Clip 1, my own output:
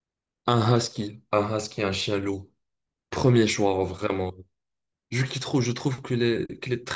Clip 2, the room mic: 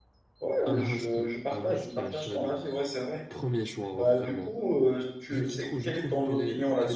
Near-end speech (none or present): present